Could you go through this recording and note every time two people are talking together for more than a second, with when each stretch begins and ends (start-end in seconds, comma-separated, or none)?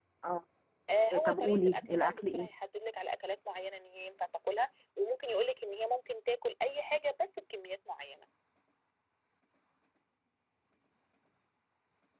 1.3-2.5